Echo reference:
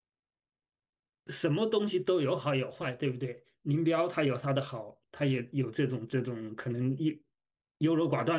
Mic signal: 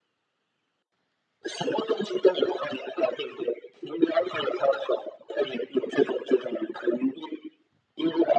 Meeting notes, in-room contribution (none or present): none